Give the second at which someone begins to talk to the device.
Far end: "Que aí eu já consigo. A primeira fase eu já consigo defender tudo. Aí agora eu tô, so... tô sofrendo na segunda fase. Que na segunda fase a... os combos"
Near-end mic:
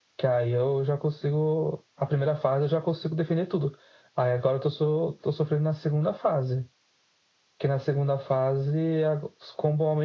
none

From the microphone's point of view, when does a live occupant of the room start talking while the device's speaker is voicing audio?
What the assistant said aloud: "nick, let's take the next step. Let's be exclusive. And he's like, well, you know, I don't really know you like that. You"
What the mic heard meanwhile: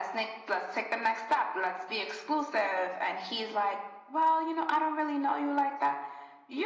none

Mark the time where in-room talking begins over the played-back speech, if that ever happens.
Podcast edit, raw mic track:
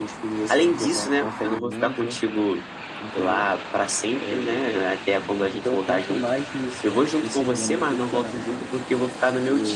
none

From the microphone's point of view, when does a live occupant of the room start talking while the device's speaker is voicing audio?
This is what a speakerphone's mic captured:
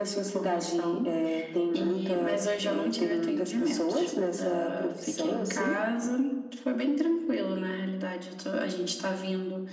none

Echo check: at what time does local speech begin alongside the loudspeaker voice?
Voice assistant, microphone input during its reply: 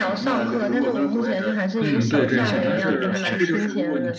1.8 s

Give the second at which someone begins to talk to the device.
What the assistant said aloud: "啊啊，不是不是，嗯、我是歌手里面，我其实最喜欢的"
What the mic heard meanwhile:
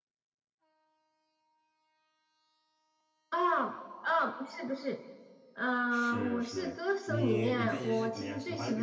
5.9 s

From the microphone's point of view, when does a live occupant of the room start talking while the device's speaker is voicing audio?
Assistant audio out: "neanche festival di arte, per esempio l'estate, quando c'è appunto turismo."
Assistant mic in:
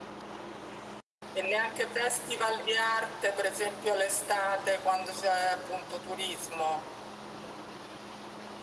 none

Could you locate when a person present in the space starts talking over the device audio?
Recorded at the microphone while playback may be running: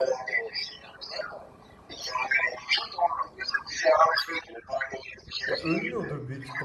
5.4 s

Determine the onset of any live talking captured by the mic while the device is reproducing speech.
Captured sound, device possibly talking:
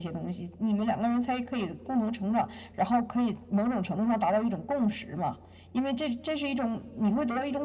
none

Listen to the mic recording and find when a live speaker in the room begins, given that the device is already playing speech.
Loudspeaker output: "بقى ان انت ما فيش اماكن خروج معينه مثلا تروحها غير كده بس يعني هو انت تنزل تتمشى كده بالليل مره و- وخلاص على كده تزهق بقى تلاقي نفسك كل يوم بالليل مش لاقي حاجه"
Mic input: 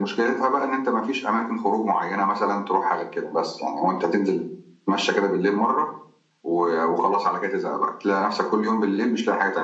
none

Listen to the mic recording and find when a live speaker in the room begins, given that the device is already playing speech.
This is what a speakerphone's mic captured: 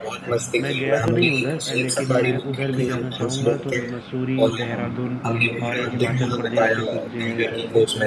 0.6 s

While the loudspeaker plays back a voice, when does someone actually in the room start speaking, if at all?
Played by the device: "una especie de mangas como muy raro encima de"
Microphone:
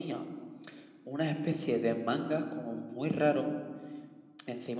none

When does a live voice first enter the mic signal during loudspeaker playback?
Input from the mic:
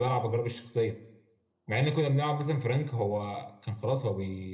none

